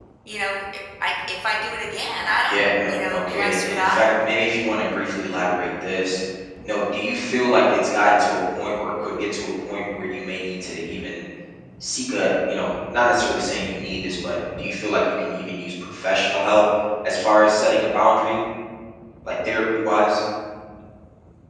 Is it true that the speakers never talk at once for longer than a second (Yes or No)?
No